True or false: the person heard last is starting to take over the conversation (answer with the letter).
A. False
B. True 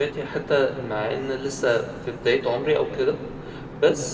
A